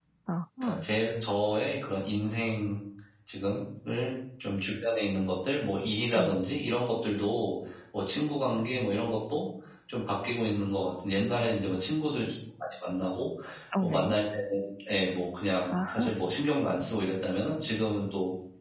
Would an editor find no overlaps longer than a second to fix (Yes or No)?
Yes